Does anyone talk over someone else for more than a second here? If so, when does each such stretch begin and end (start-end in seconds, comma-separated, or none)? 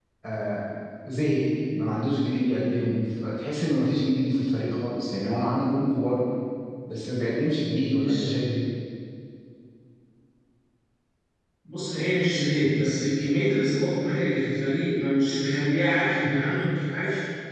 none